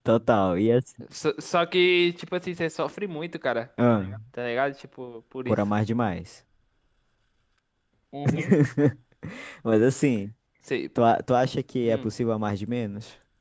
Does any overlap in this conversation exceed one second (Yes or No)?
No